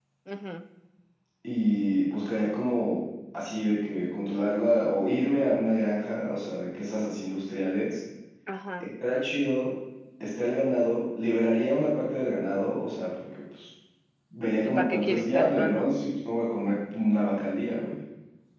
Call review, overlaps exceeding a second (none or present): present